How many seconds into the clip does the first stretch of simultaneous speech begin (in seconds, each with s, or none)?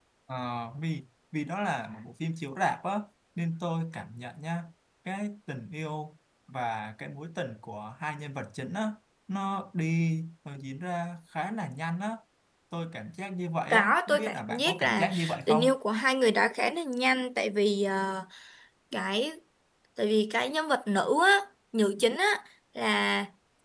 13.7 s